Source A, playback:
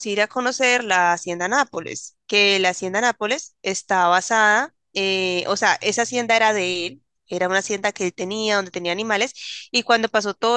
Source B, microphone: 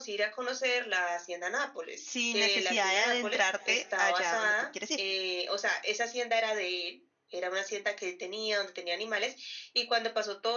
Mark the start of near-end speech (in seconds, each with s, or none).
2.0 s